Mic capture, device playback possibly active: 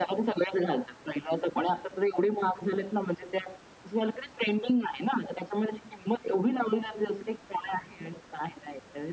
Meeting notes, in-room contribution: none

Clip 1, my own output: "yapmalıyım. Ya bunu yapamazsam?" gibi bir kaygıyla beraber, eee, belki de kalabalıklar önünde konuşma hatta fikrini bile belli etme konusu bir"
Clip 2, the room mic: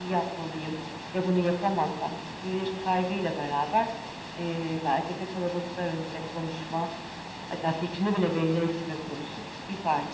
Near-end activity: none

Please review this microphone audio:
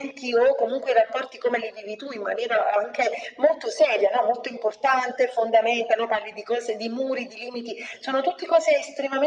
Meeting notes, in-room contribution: none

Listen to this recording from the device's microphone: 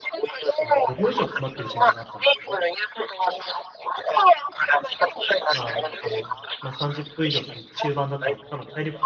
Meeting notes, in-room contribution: present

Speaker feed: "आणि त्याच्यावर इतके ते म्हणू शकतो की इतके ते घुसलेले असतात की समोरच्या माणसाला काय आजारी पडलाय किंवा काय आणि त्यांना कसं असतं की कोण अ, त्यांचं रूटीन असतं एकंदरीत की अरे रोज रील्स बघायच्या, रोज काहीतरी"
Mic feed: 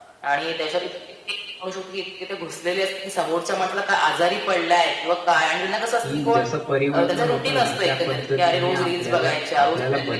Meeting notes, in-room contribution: present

